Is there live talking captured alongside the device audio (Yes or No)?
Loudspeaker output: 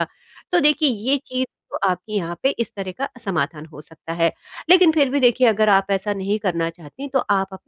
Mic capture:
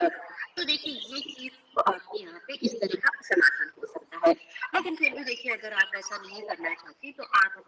No